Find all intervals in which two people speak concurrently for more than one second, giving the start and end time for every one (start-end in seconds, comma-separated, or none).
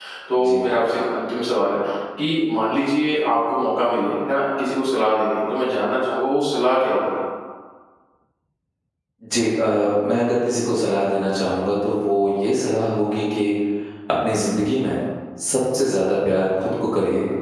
none